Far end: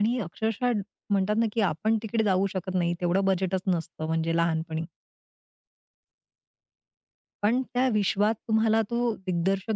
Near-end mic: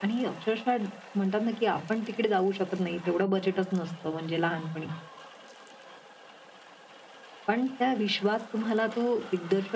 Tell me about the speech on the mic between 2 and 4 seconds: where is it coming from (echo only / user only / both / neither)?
echo only